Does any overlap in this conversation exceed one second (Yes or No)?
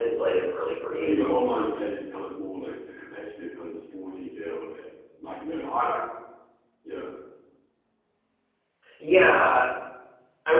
No